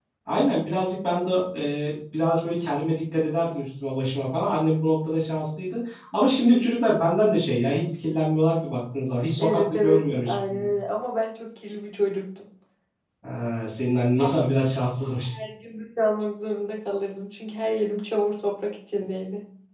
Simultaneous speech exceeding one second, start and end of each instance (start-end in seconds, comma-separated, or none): 9.4-10.7